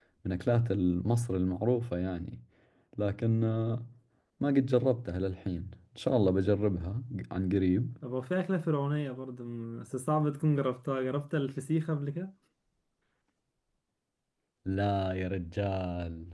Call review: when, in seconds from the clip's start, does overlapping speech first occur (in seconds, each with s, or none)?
none